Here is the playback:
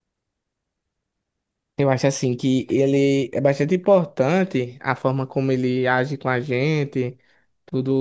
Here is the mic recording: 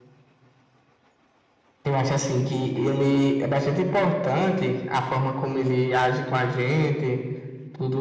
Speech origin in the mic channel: echo only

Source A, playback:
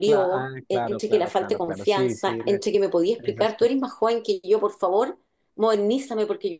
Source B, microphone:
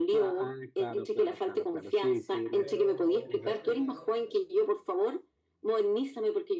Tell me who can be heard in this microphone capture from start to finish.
both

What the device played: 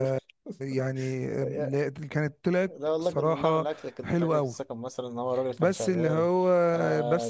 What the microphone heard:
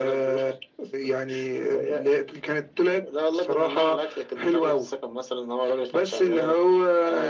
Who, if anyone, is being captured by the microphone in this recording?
echo only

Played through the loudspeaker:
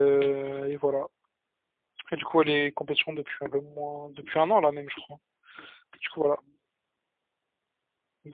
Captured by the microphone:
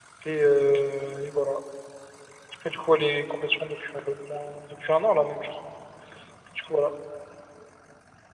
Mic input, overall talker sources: echo only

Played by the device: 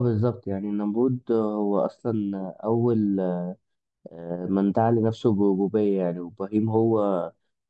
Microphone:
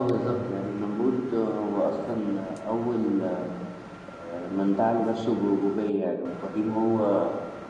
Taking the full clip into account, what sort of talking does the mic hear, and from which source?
echo only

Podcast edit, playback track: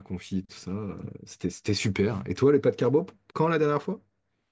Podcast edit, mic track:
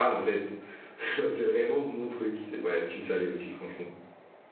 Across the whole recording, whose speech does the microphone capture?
user only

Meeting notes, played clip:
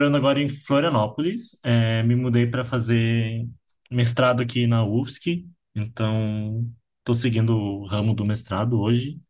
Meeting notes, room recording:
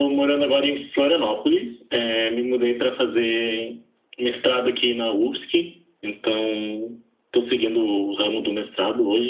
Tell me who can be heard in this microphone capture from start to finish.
echo only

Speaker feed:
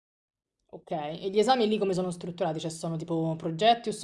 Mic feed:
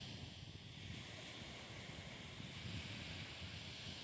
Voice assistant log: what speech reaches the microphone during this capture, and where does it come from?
neither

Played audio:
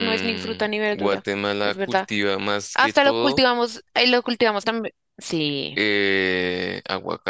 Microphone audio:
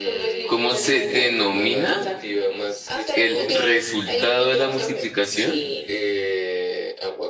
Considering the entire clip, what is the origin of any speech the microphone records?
both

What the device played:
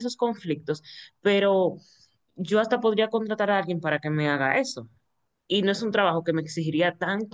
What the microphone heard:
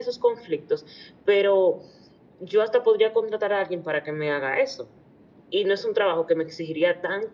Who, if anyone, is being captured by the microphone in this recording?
echo only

